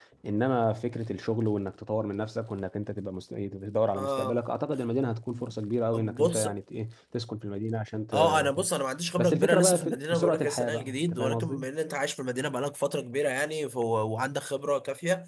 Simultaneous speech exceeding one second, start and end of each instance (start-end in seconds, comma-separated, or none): 9.2-11.6